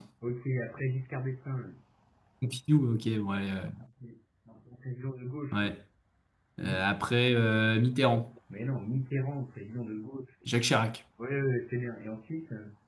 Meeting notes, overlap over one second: none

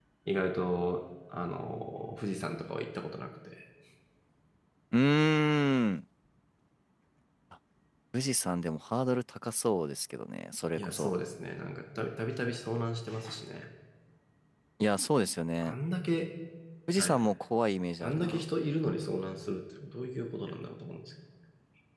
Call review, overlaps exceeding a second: none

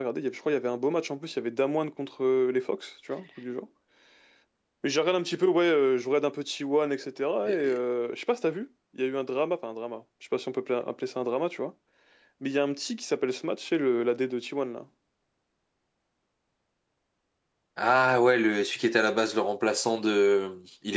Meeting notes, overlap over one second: none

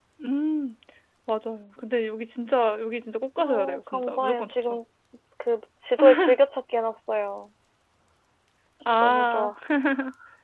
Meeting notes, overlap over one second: present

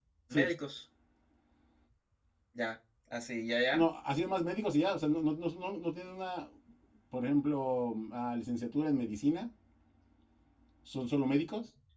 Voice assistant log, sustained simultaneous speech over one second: none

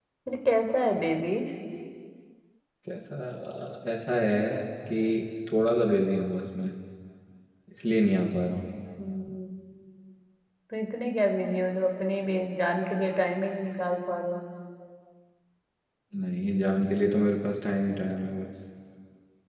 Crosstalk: none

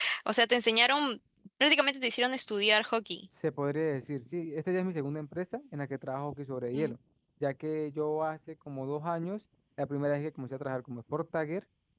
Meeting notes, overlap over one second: none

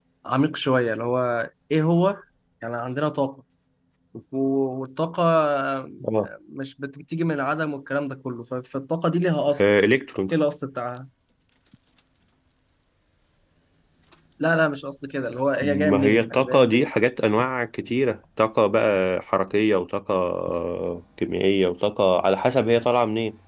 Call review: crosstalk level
present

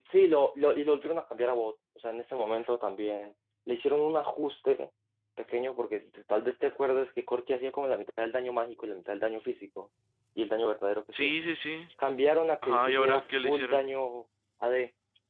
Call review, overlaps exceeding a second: present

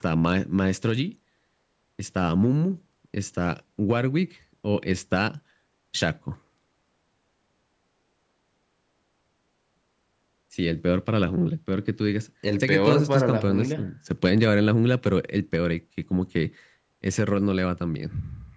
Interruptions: present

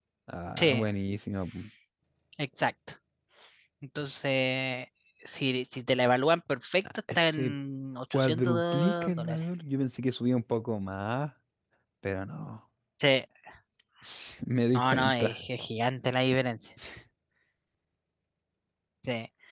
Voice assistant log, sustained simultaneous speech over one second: present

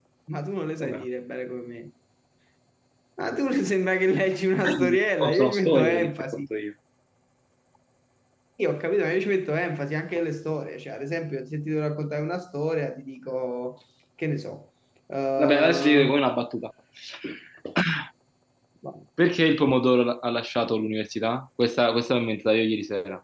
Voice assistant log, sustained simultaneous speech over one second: present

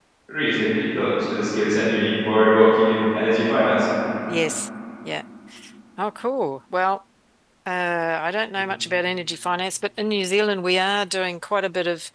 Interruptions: none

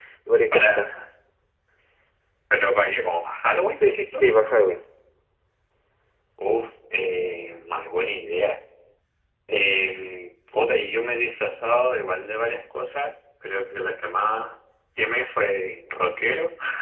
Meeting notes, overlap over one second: none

